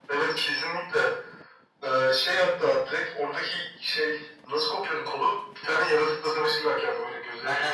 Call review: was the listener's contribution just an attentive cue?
No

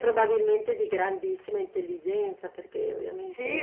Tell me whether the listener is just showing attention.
No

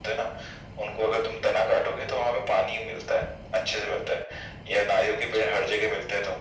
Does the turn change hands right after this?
No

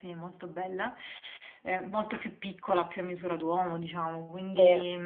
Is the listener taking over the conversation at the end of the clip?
No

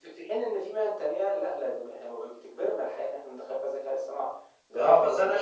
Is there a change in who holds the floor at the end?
Yes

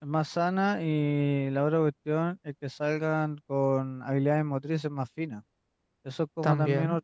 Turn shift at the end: No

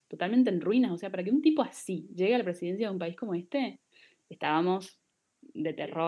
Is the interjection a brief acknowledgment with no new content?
No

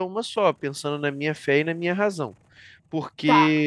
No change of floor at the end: Yes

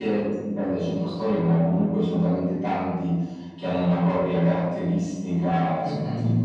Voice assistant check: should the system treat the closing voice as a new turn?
Yes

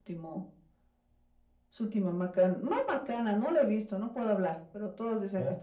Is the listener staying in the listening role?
Yes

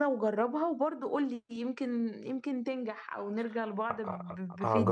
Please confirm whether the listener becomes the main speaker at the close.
Yes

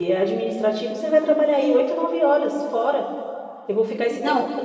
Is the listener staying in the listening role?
Yes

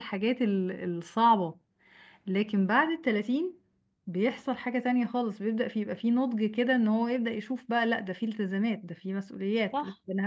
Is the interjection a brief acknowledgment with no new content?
No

